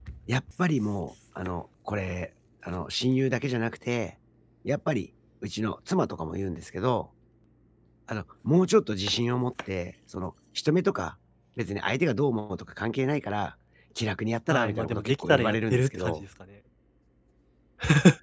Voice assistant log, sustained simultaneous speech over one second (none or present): present